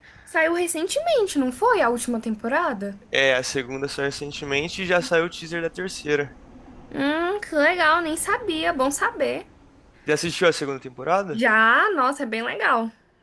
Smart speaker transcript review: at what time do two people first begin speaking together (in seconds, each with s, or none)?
none